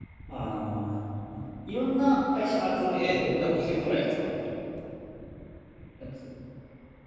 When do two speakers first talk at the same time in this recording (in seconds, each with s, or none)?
2.9 s